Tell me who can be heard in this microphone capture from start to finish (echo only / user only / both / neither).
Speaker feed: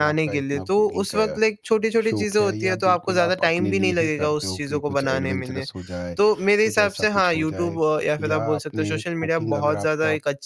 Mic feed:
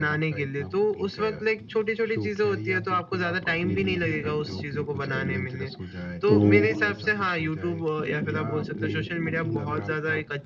both